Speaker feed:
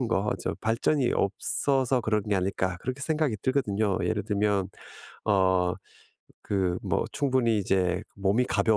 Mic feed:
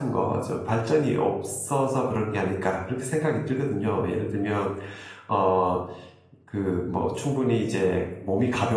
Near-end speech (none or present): none